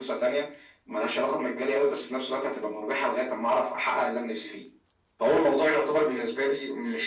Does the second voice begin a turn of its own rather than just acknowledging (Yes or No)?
No